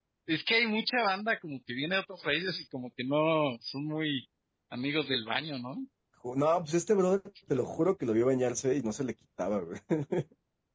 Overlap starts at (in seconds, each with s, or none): none